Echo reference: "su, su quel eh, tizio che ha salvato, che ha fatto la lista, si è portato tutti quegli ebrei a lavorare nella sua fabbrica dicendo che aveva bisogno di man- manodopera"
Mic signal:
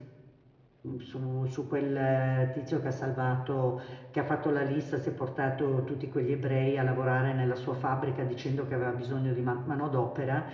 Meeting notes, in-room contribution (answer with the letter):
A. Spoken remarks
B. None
B